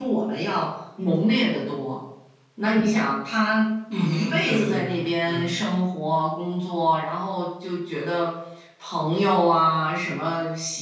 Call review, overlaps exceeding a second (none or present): present